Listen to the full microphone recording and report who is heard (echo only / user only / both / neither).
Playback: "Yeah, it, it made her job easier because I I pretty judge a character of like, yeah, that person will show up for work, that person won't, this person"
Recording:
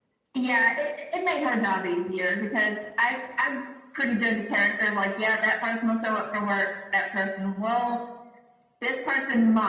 echo only